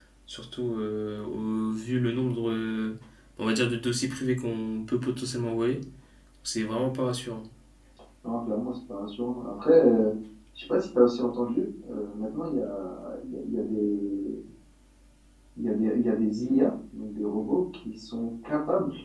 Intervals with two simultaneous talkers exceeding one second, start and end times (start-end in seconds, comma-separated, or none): none